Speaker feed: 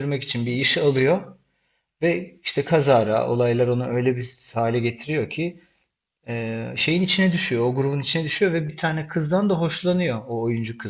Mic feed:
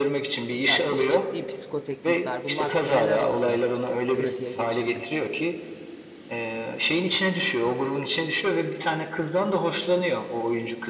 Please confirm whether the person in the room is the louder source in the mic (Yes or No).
No